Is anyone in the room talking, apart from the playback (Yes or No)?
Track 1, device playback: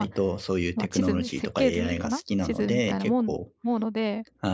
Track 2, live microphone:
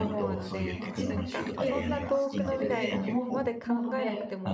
Yes